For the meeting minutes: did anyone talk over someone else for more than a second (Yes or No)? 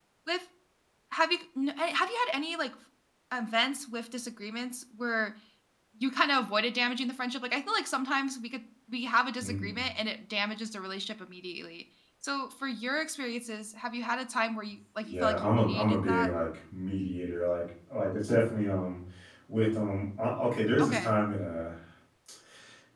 Yes